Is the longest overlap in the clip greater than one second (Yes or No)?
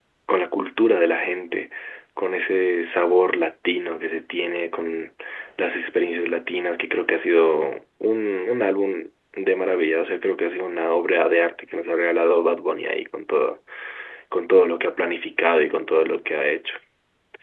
No